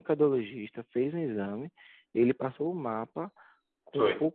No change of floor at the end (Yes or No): Yes